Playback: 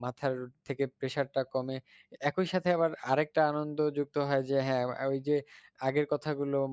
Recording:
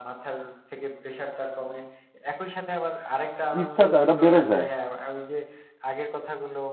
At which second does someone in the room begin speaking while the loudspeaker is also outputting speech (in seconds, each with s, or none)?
3.6 s